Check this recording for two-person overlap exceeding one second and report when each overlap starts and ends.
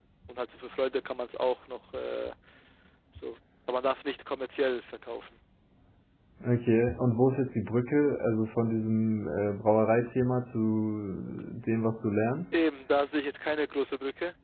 none

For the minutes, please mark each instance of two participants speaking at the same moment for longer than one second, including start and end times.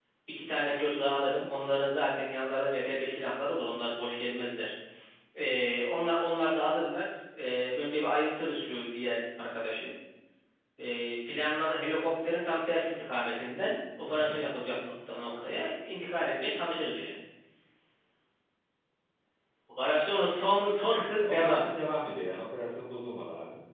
none

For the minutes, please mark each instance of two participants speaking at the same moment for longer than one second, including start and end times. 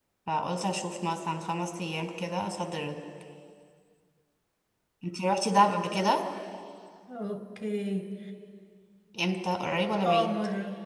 none

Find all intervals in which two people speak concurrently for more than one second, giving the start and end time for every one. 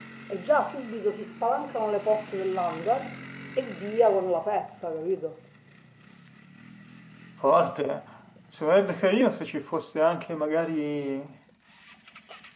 none

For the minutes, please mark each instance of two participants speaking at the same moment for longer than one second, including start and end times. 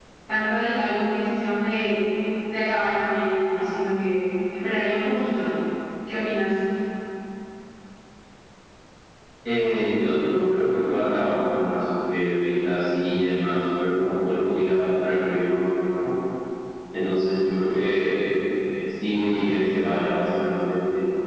none

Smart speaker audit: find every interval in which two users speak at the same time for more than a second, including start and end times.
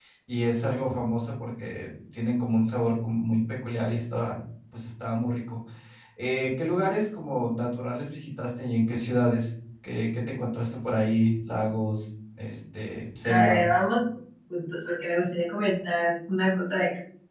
none

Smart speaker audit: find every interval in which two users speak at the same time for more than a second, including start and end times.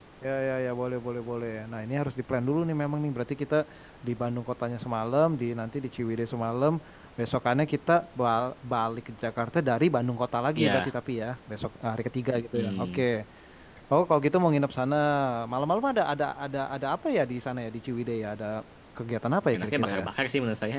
none

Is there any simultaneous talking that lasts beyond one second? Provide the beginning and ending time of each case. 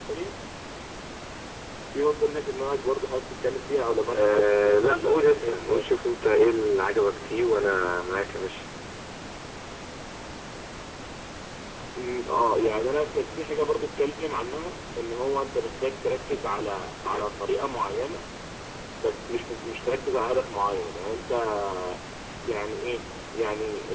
4.1-5.9

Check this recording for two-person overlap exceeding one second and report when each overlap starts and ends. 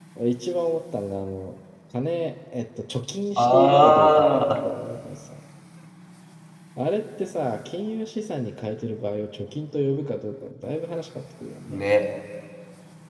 3.4-4.6

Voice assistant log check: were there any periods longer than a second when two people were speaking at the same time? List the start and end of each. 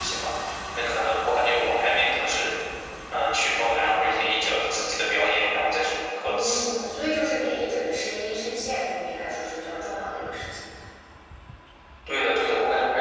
none

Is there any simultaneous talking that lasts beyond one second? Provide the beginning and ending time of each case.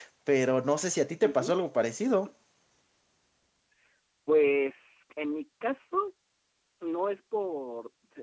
none

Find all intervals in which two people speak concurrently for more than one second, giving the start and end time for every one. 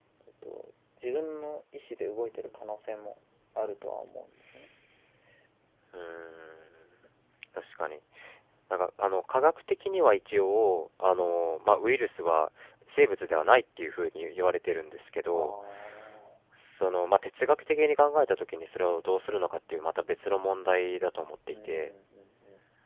none

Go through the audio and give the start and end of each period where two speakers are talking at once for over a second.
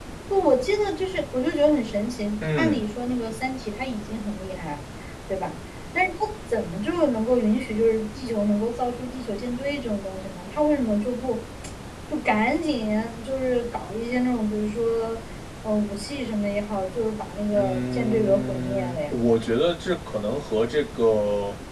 17.5-19.1

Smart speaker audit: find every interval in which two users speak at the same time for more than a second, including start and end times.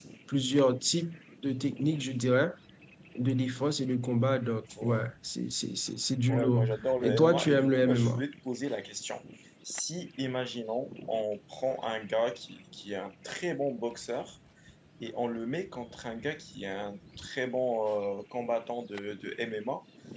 6.3-8.2

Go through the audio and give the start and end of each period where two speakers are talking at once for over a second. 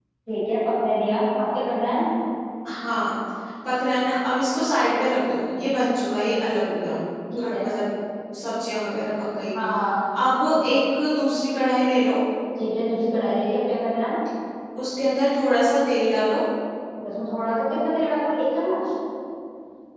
none

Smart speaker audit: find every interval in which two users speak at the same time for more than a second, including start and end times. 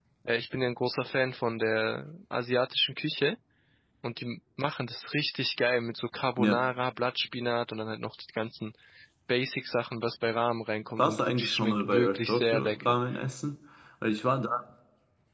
11.0-13.0

